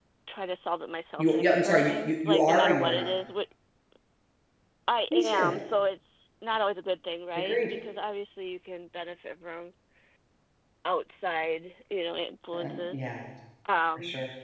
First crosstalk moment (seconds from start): 1.2 s

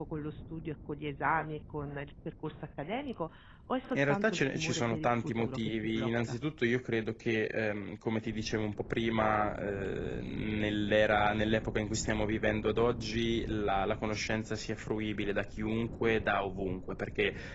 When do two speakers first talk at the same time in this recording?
3.9 s

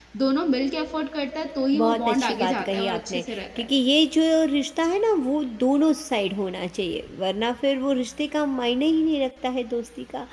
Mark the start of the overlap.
1.7 s

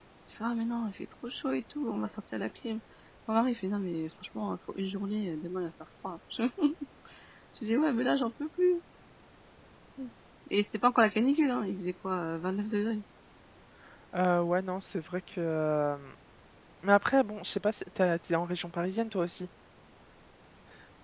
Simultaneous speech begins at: none

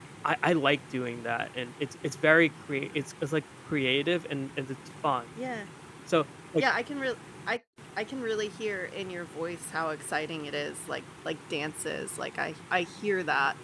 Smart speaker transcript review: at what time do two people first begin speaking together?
none

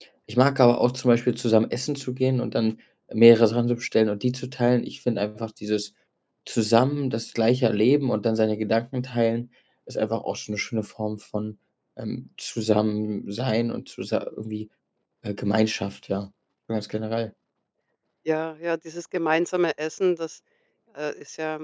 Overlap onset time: none

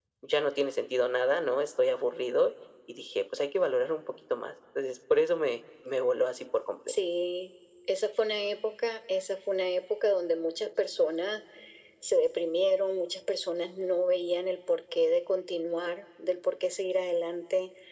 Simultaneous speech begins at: none

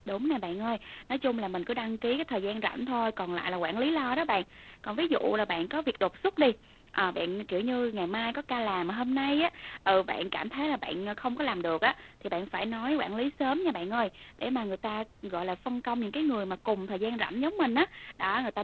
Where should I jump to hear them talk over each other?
none

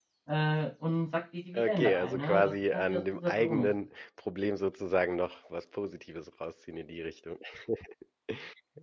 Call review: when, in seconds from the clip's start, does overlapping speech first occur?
1.5 s

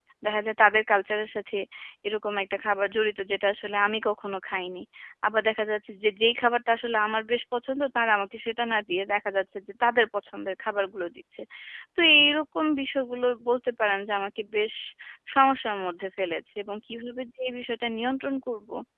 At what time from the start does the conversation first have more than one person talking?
none

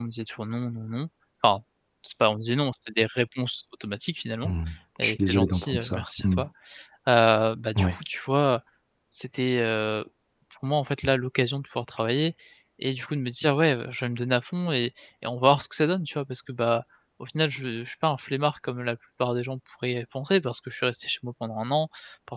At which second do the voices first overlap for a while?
5.0 s

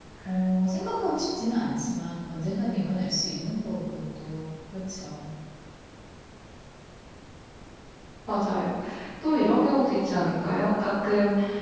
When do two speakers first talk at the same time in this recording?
none

